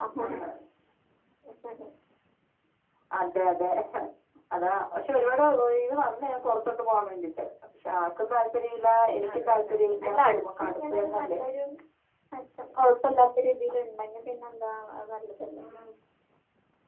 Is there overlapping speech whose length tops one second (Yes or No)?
Yes